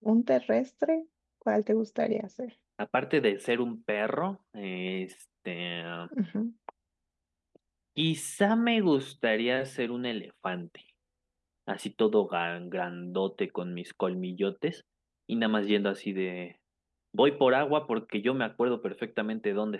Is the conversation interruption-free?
Yes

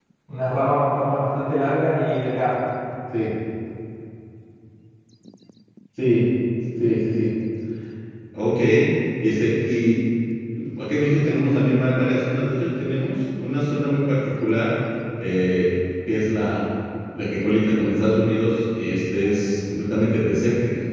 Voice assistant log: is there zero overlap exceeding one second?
Yes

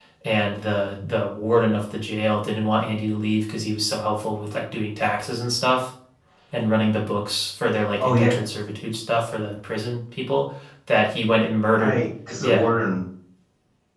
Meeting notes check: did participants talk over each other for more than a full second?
No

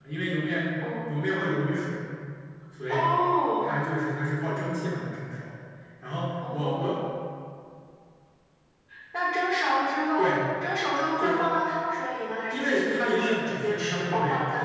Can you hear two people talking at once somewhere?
Yes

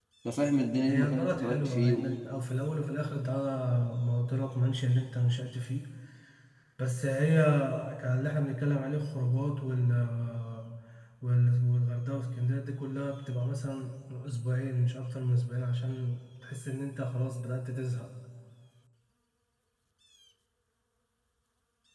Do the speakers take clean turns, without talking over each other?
No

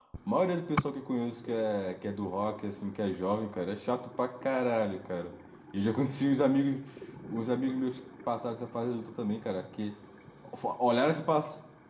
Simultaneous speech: No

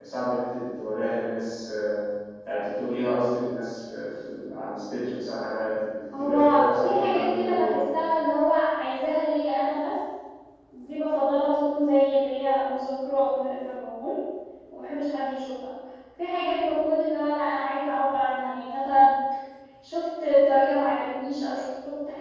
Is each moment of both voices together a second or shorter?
No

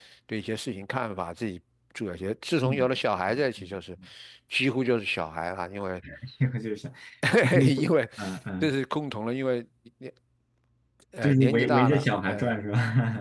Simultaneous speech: Yes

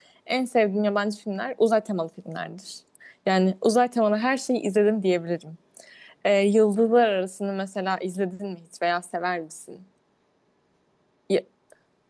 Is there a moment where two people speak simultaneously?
No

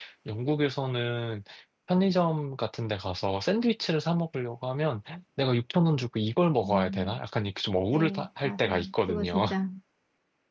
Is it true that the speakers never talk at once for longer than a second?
No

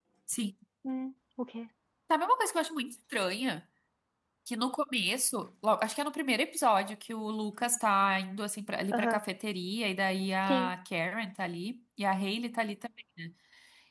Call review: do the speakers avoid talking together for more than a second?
Yes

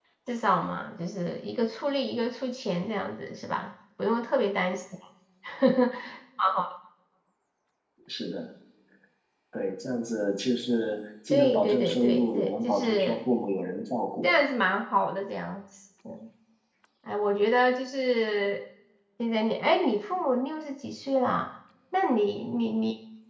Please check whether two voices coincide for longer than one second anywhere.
Yes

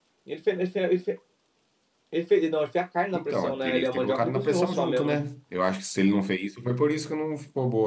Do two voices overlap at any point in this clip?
Yes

